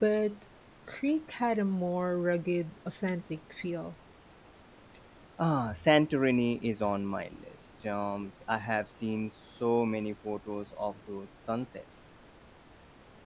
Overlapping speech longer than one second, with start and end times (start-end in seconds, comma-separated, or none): none